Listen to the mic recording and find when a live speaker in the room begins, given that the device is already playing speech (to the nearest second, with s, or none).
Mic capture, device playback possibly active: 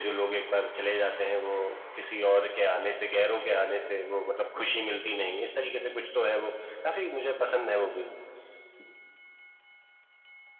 none